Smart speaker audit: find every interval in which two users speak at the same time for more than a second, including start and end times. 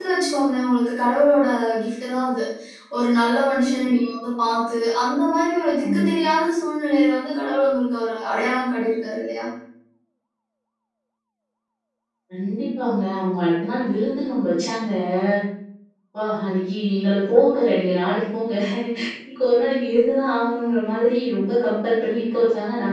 none

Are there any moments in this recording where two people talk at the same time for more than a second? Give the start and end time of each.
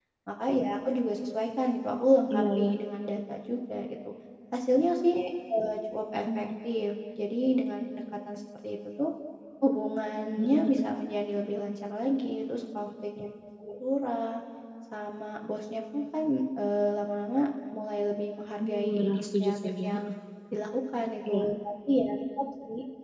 18.6-19.9

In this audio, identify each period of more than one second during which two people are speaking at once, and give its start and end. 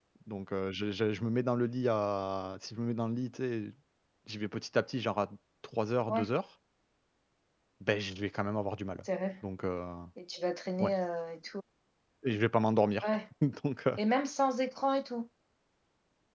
none

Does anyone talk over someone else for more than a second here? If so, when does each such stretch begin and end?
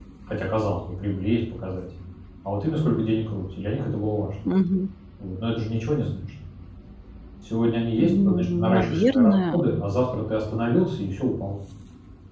8.0-9.6

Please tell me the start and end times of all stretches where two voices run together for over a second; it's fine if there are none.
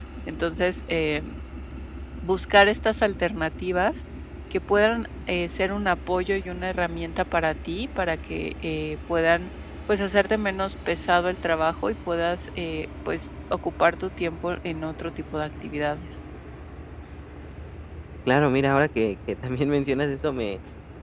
none

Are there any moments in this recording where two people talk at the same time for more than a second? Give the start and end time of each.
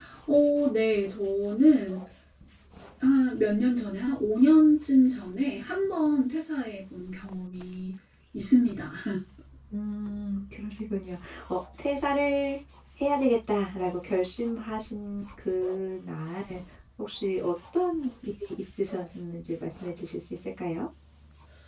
none

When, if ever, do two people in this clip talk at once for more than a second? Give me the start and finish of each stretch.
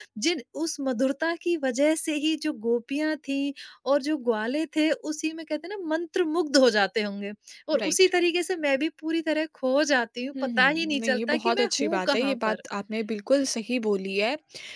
10.4-12.6

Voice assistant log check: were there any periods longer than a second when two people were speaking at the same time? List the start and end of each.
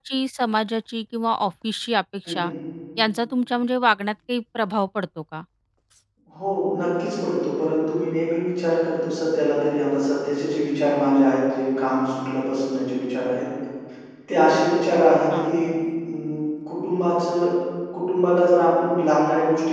none

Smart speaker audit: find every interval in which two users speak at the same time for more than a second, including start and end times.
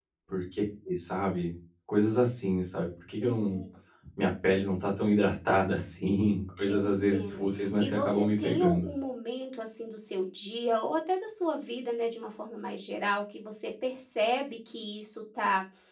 6.7-8.9

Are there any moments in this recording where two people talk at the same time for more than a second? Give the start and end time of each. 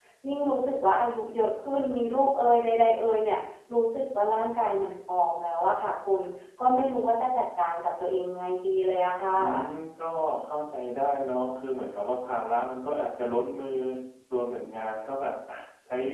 none

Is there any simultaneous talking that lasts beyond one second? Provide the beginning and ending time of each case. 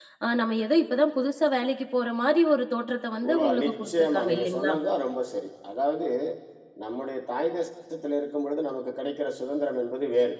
3.3-4.7

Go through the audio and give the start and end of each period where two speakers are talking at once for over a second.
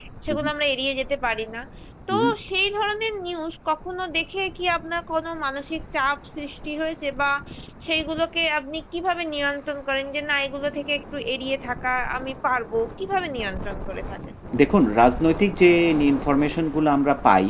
none

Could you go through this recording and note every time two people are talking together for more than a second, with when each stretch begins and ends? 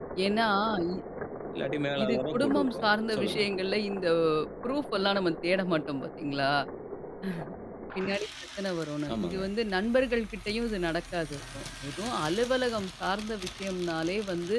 2.0-3.4

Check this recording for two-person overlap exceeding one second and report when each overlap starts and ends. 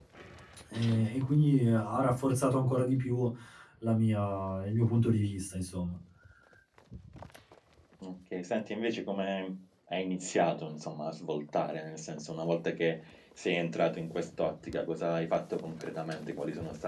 none

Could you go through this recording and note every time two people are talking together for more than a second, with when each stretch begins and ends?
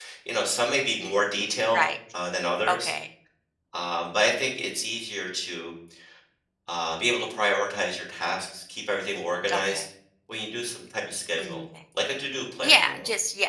none

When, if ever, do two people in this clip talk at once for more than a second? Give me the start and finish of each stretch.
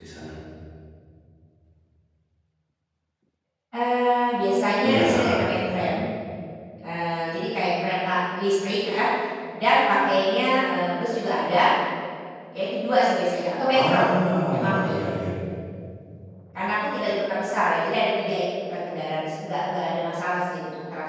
none

